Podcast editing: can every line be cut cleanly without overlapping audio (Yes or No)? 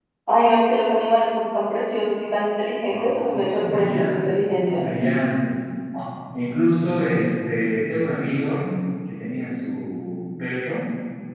No